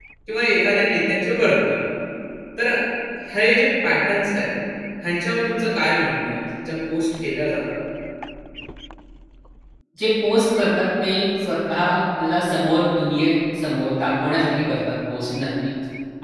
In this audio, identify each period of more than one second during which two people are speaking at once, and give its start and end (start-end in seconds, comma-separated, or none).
none